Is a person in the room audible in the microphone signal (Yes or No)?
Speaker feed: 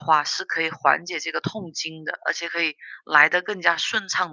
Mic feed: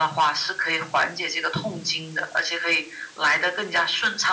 No